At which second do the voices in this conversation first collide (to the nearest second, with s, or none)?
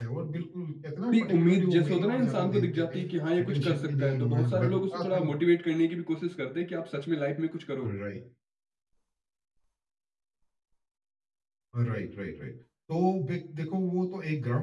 1 s